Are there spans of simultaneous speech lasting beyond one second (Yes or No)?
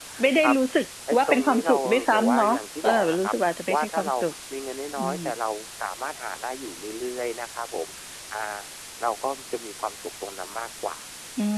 Yes